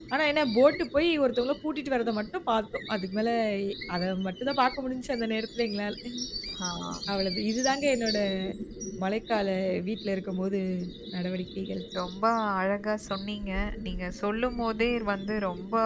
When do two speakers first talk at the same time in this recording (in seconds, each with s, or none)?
none